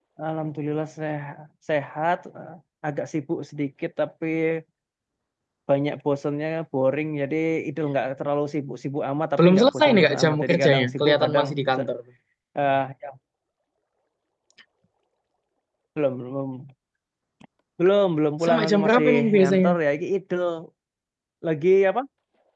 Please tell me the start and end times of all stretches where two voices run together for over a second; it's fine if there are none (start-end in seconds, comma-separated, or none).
9.4-11.9, 18.4-19.7